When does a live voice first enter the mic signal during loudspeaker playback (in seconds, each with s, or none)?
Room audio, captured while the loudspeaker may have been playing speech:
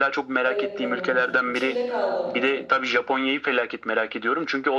0.4 s